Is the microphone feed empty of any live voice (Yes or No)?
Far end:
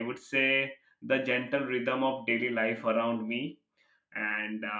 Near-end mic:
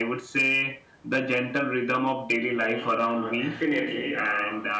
No